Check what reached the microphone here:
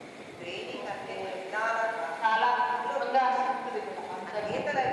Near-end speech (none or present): none